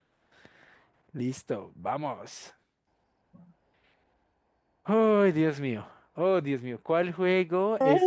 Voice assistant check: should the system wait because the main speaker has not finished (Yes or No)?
Yes